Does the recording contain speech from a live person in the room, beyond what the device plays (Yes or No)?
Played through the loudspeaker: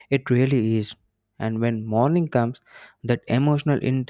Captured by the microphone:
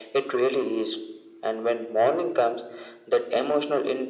No